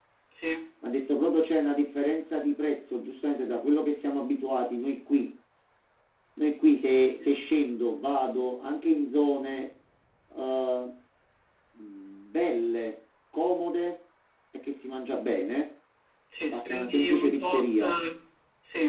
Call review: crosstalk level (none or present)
present